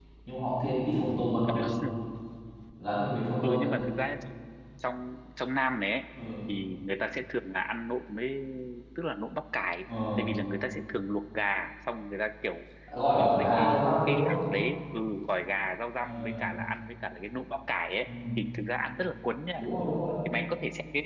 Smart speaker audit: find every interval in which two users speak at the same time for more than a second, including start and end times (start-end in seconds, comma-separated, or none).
13.1-14.4